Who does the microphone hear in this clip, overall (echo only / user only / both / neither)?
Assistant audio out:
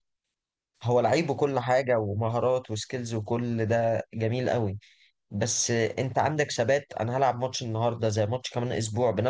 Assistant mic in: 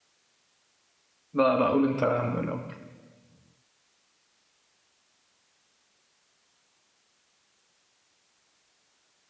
user only